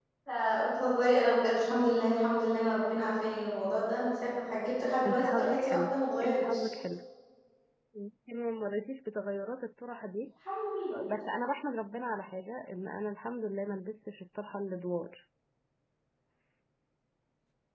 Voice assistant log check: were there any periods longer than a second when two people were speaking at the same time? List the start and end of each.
5.0-6.7

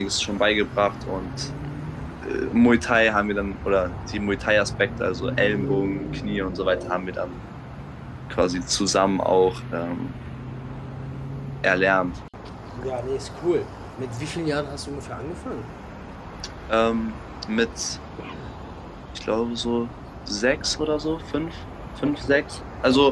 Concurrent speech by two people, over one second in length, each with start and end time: none

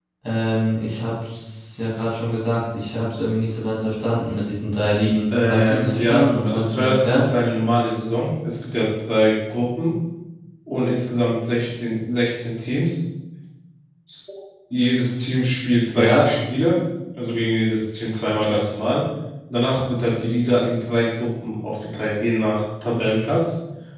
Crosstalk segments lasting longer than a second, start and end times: 5.5-7.2

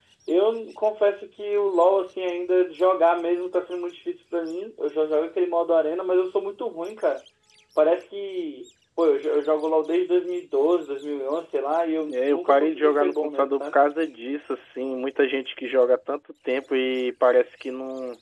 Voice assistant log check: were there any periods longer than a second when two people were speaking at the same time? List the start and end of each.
12.1-13.8

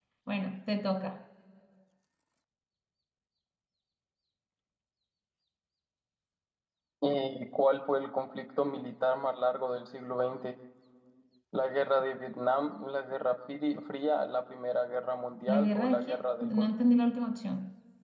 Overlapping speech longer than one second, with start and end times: 15.5-16.7

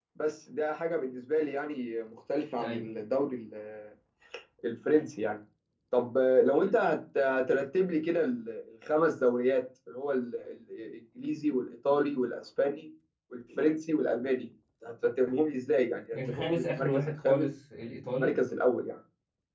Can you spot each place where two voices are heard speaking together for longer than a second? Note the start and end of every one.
16.1-17.5

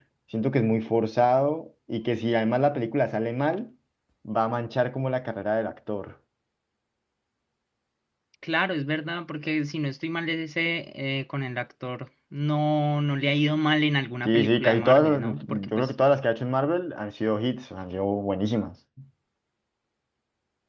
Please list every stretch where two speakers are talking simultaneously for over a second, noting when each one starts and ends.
14.2-15.9

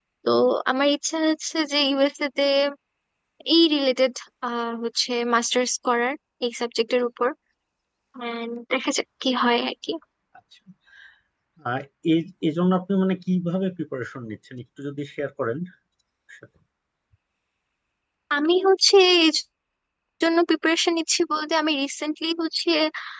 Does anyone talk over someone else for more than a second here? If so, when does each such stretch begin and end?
none

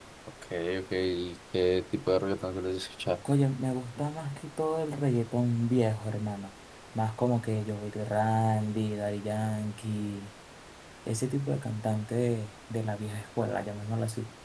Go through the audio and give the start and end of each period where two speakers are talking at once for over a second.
none

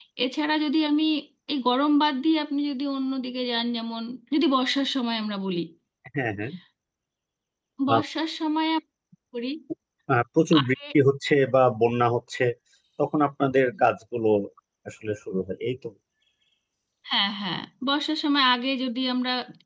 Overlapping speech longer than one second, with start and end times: none

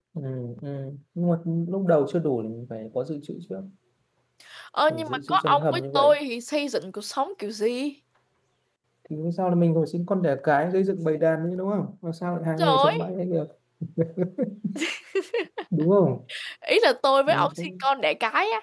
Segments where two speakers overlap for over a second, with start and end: 4.9-6.1

